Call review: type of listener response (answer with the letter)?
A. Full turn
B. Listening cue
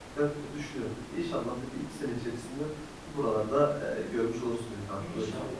A